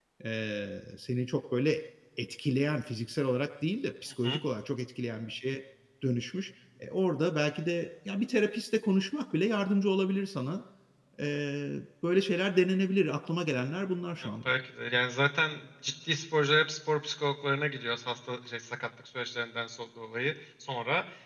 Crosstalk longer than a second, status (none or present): none